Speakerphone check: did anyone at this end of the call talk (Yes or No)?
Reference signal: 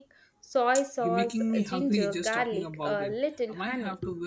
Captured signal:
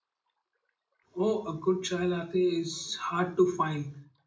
Yes